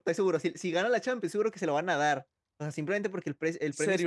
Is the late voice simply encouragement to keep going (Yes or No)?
No